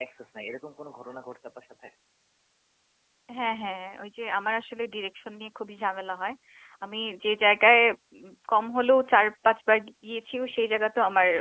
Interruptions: none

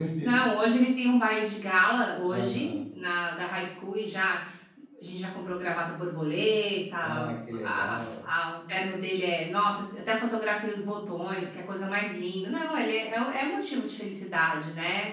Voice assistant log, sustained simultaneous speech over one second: none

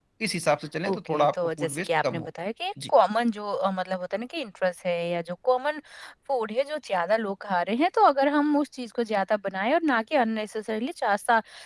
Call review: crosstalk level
present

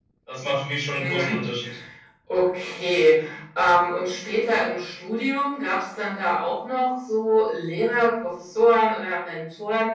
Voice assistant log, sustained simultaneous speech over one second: none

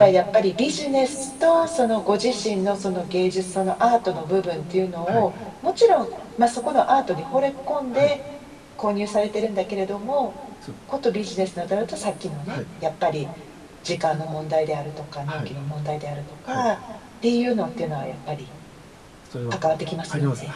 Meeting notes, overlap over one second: none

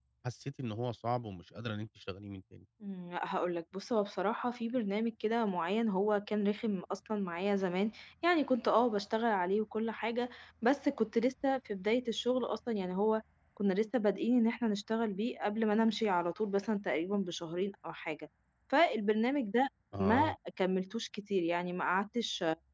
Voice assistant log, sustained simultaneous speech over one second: none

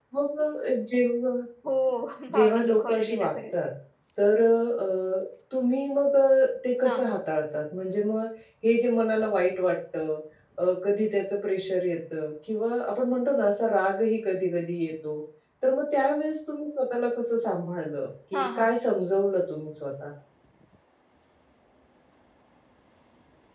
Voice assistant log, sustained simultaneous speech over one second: present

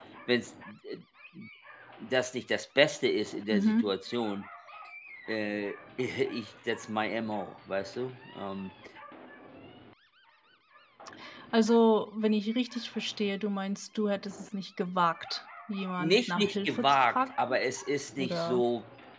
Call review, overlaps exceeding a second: present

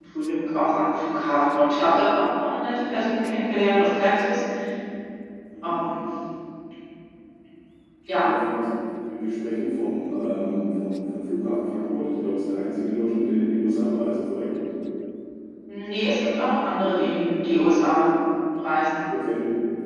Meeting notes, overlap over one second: none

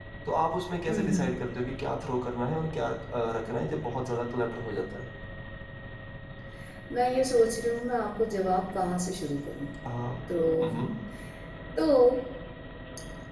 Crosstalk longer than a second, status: none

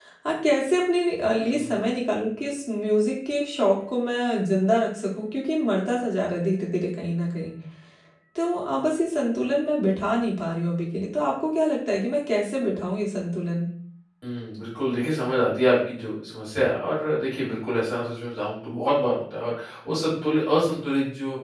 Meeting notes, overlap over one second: none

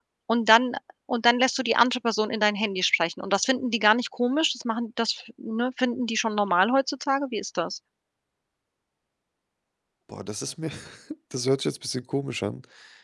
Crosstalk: none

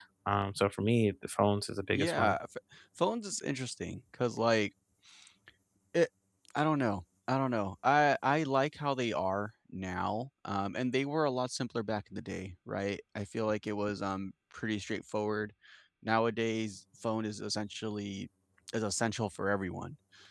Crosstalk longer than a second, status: none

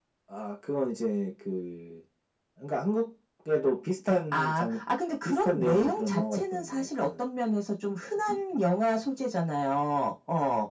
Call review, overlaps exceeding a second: present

